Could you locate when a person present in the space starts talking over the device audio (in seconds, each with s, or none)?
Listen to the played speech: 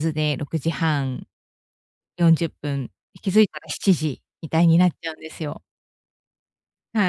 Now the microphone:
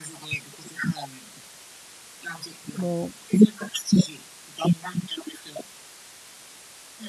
2.8 s